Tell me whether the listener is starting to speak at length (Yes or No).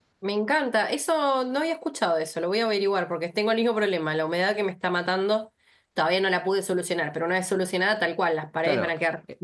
Yes